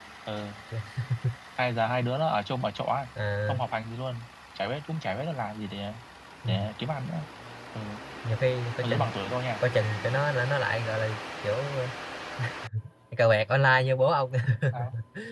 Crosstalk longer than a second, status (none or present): none